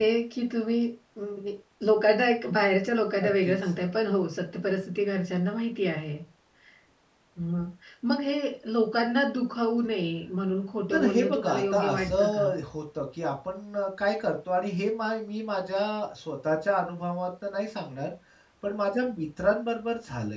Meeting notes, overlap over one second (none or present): present